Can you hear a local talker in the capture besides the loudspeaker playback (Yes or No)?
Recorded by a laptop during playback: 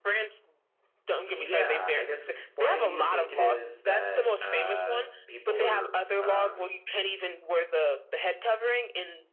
Yes